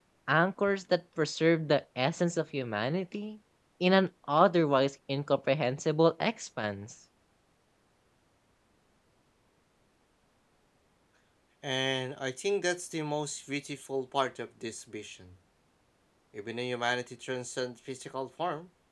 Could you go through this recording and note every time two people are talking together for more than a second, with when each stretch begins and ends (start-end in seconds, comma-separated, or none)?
none